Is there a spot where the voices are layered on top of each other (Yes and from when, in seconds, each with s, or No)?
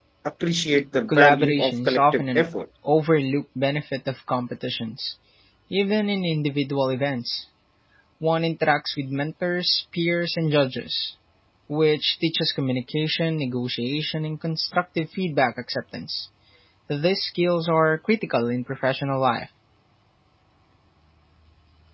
Yes, from 1.1 s